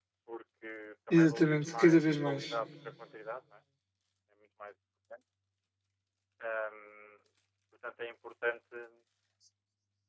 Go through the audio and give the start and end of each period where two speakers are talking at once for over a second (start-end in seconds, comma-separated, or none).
1.1-2.6